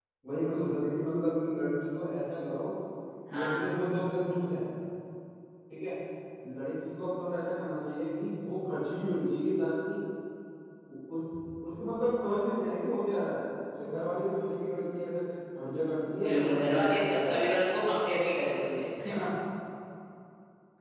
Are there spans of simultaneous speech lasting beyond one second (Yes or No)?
Yes